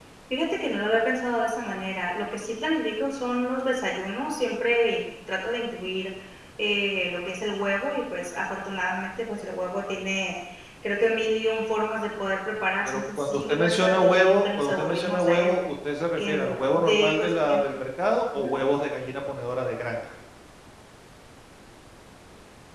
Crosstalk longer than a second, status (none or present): present